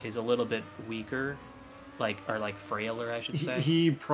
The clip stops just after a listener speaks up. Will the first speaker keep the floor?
No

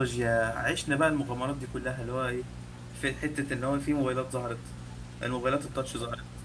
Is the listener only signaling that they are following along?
Yes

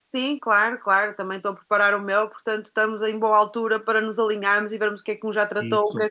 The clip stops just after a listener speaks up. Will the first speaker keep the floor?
Yes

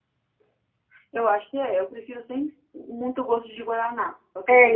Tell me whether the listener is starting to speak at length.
Yes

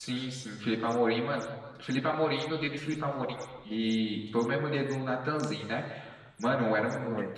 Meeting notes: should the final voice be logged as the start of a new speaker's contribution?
No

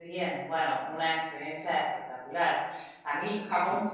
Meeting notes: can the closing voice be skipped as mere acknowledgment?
Yes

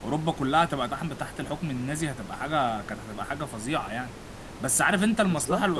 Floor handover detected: No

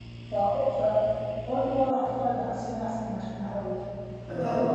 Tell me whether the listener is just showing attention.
No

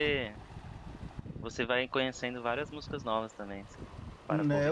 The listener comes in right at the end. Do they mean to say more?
Yes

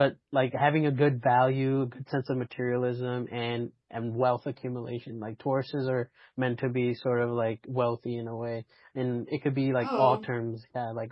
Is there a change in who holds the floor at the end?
No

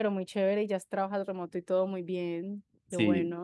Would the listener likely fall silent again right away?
No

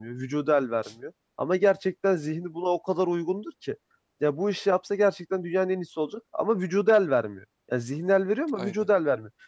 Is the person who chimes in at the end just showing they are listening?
Yes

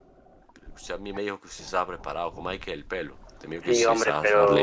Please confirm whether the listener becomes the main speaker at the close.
Yes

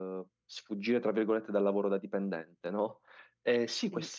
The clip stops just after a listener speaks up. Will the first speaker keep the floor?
Yes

